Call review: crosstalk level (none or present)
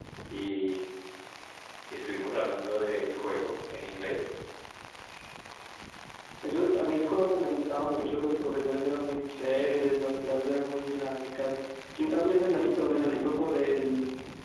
none